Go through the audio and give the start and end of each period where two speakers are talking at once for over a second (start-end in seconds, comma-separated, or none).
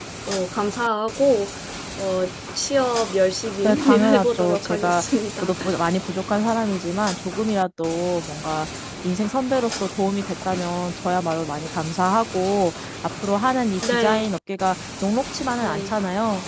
3.6-5.5